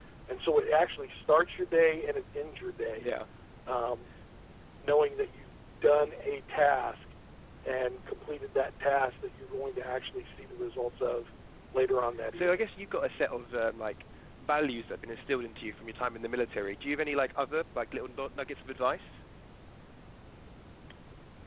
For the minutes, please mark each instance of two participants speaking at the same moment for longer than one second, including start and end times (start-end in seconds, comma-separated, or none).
none